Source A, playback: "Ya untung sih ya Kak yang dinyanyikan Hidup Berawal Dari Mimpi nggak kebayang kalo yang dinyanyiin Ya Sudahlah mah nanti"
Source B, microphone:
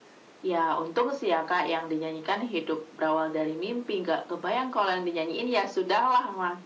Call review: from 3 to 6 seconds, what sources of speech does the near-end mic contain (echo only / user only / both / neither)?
echo only